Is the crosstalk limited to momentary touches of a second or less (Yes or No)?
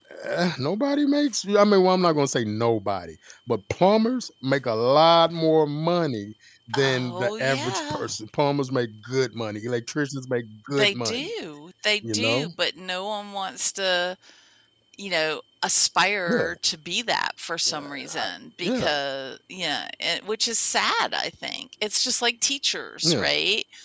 No